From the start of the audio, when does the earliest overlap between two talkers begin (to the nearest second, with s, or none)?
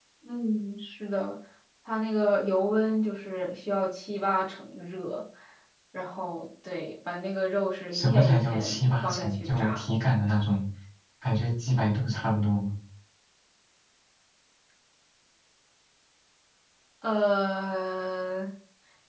8 s